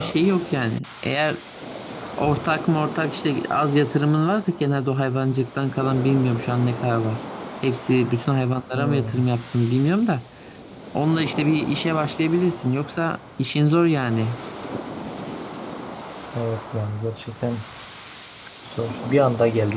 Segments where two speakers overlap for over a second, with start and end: none

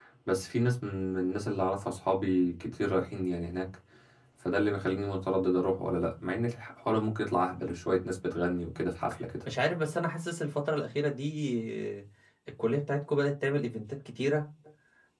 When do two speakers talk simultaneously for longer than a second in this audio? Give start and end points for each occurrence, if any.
none

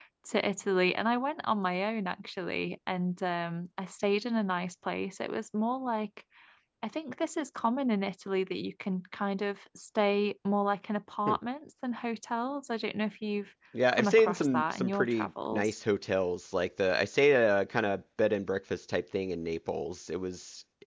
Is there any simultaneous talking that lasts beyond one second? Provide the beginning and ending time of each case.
13.9-15.7

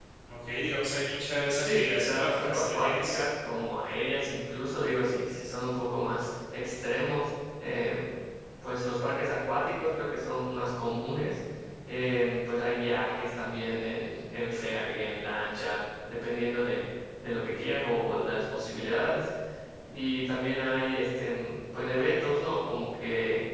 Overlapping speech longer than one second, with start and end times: 1.6-3.2

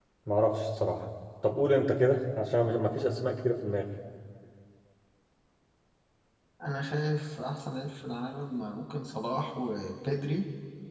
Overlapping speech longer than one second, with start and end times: none

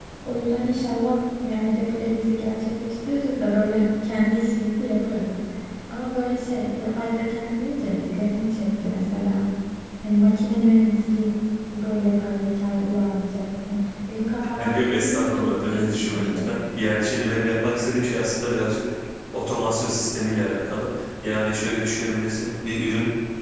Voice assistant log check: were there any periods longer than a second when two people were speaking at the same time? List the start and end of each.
14.7-16.5

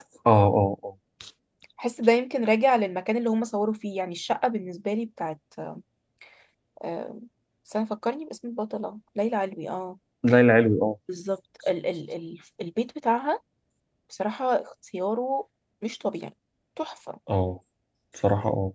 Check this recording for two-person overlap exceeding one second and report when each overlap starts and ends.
none

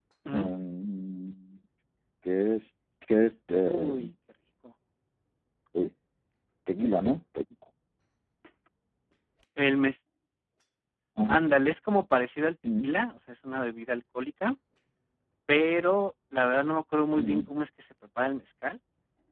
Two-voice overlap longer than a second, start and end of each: none

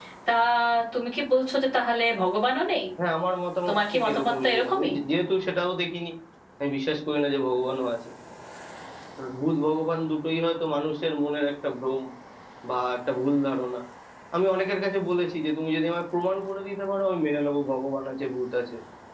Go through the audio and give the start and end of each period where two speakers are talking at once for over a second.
3.7-4.9

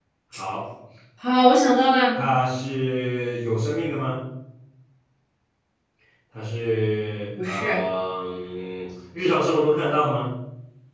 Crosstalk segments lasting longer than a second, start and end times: none

